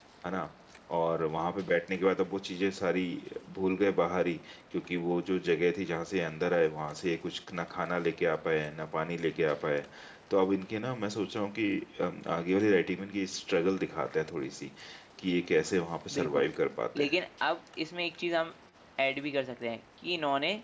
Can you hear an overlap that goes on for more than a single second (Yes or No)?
No